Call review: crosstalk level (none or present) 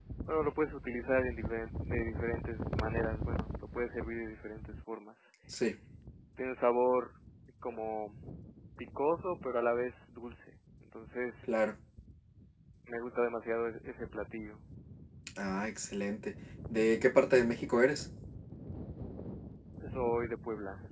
none